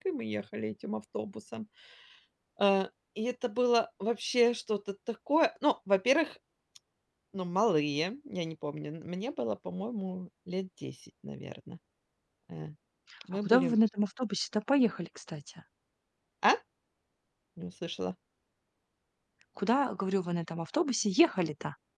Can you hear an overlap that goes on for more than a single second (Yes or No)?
No